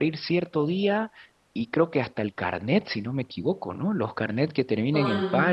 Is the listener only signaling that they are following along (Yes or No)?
Yes